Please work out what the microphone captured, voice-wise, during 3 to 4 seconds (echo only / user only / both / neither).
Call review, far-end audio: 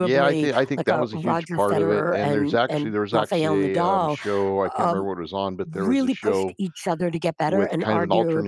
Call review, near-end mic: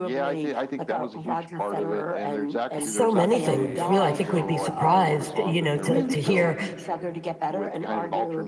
both